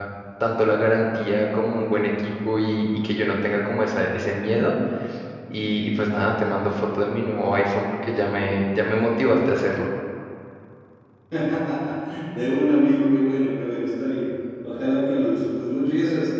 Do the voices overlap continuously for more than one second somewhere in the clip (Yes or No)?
No